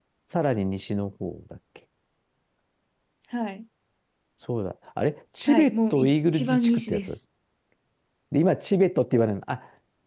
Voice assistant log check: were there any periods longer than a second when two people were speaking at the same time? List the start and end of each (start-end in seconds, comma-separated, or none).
5.5-7.1